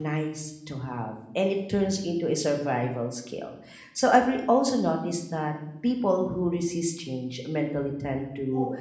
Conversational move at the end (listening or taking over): listening